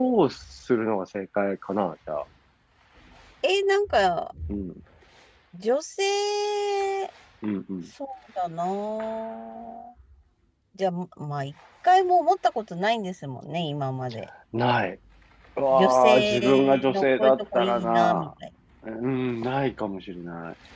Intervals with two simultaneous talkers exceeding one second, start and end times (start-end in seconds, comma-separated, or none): 15.7-18.3